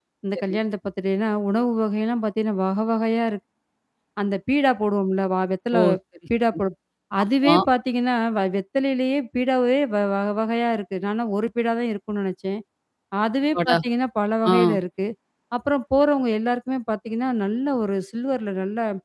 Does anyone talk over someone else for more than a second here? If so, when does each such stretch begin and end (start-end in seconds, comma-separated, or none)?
none